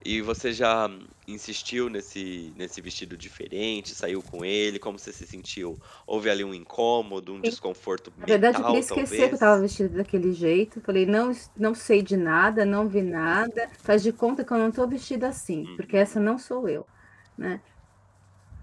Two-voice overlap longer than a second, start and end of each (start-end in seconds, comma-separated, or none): 8.2-9.6